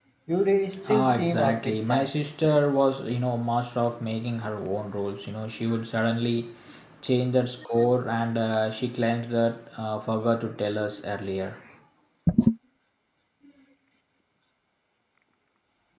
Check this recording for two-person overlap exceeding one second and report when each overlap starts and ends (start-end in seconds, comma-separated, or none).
0.9-2.1